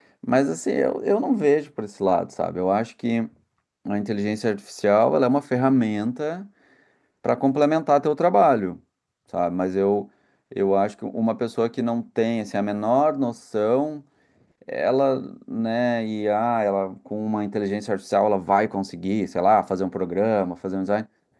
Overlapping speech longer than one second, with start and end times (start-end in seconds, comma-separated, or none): none